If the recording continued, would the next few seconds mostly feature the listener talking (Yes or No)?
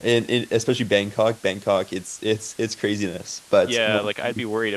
Yes